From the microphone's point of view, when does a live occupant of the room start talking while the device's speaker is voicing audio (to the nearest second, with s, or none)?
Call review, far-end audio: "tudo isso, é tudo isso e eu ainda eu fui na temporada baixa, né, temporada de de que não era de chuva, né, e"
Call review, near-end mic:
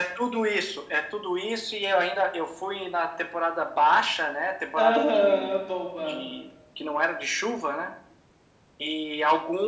5 s